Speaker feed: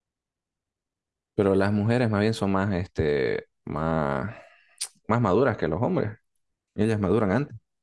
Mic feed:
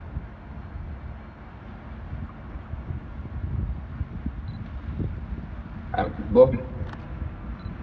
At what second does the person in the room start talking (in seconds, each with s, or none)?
5.9 s